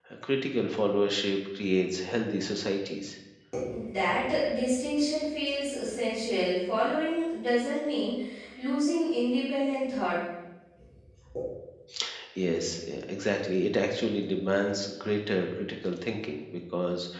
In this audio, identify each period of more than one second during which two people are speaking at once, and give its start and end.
none

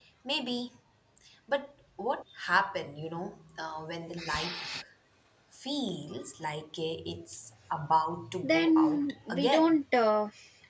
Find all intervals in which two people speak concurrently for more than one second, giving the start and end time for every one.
8.4-9.8

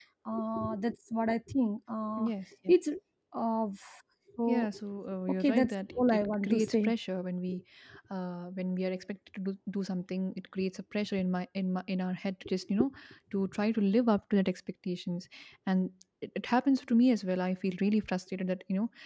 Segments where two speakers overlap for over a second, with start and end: 5.4-6.9

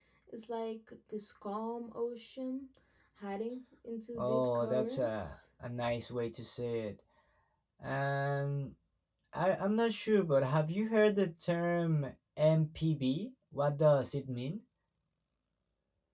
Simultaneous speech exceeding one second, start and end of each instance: 4.2-5.4

